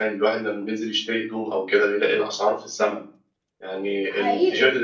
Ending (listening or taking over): taking over